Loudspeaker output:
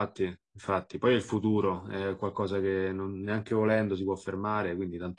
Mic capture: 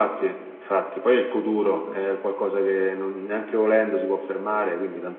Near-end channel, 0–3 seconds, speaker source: echo only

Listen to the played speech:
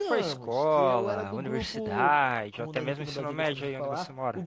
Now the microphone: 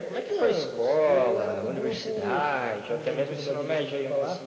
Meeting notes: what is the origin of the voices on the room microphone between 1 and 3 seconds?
echo only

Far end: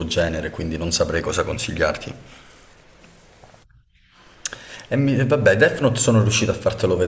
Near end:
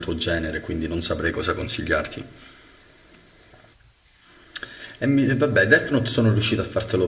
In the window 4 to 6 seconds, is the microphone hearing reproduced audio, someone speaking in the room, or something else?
echo only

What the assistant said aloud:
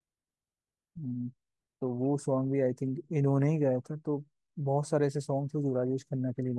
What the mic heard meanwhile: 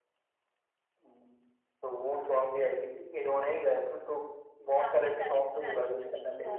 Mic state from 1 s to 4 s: echo only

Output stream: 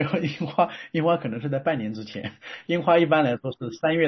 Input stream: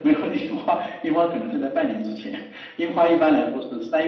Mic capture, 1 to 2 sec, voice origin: echo only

